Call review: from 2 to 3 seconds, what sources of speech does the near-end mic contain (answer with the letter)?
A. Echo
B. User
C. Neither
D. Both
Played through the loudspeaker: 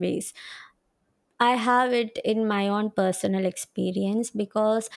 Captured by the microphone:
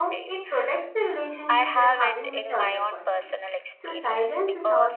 D